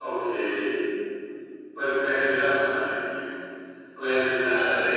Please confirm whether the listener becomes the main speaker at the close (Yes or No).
No